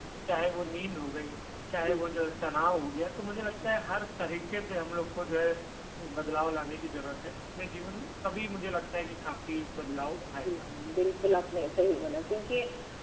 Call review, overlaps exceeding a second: none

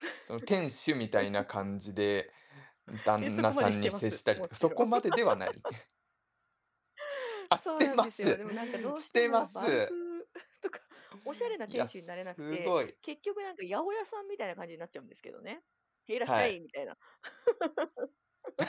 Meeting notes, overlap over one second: present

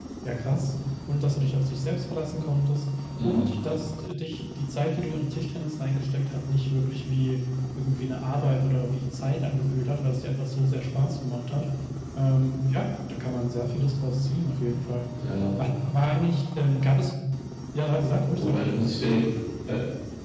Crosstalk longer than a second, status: none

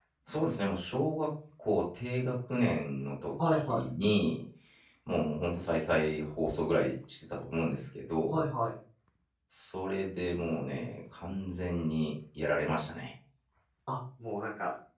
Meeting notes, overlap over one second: none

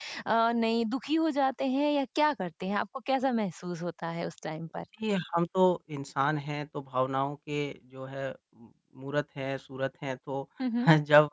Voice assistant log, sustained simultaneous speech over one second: none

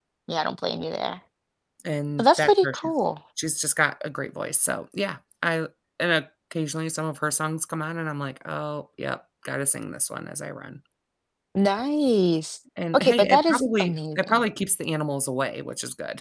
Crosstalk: present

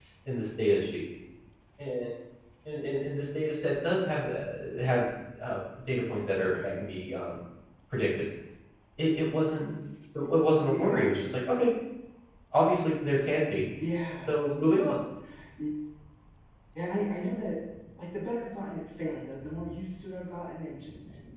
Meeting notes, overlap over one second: none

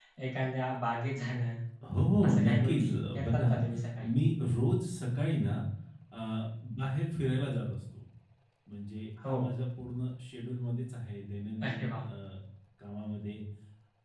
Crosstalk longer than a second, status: present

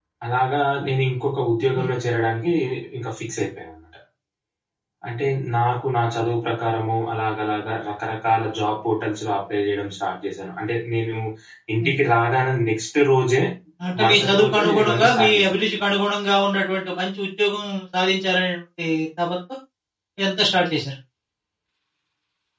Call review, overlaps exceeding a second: present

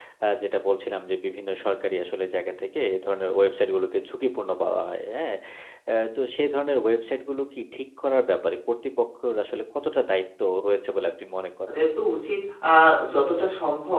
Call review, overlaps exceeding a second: none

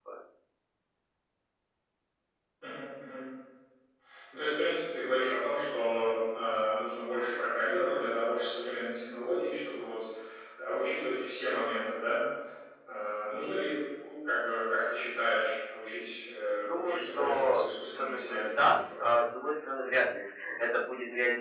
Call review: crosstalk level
present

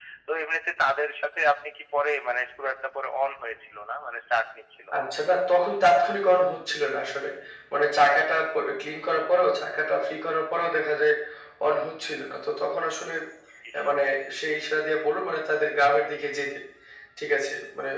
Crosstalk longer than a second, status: none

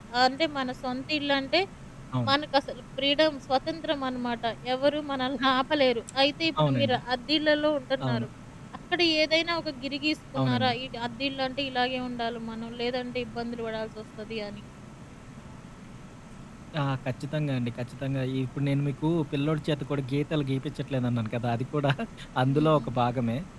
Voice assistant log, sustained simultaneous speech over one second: none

